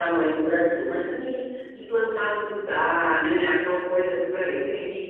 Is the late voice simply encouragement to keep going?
Yes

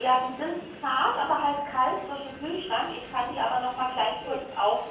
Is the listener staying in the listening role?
Yes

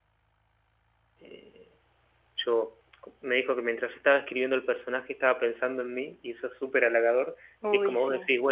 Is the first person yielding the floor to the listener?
No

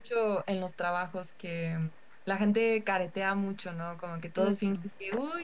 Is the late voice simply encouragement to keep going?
Yes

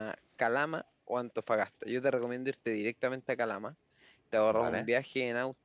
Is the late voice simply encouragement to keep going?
Yes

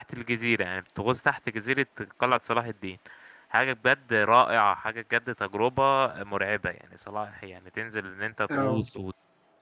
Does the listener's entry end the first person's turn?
No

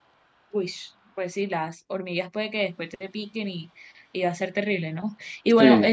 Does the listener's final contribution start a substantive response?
No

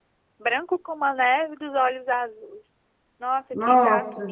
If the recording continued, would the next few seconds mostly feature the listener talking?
No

